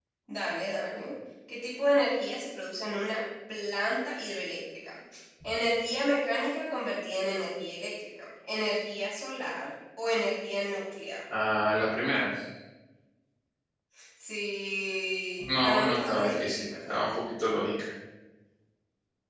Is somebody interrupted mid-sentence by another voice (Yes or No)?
Yes